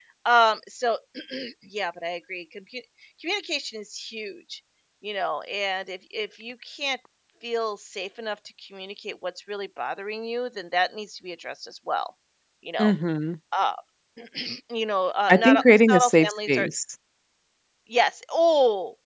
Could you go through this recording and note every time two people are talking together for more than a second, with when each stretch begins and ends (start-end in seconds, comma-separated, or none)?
15.3-16.7